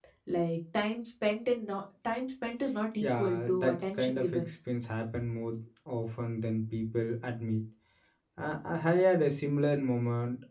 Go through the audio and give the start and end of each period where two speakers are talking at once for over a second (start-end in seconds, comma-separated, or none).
3.0-4.4